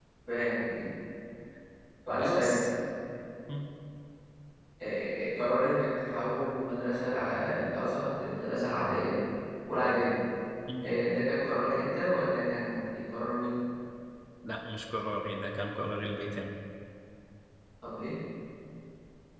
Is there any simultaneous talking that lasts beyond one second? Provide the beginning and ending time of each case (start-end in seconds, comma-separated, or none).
none